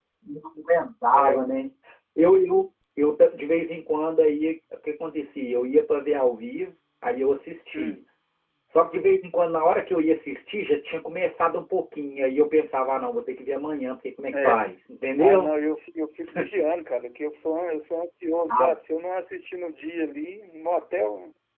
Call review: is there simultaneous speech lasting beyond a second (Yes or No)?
No